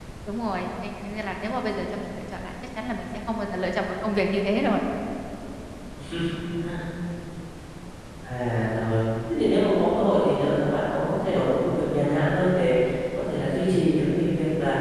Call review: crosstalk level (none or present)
none